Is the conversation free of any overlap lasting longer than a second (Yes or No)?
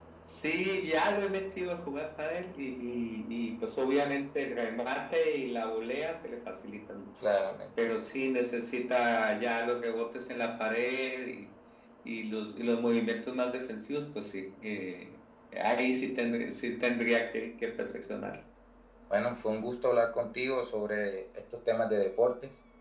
Yes